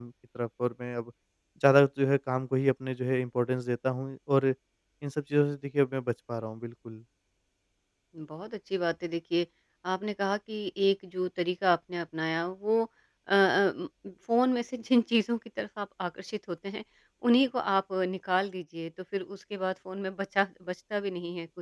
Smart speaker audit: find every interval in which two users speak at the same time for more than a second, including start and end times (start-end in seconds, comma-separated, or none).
none